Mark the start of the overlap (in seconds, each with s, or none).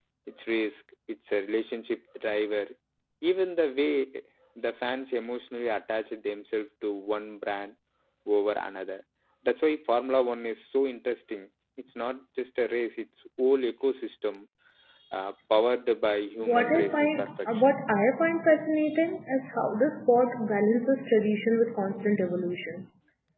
16.4 s